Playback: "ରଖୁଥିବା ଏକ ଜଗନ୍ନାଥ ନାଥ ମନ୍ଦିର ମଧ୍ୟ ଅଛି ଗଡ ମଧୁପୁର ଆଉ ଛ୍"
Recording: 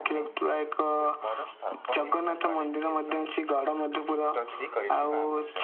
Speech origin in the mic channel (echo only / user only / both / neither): both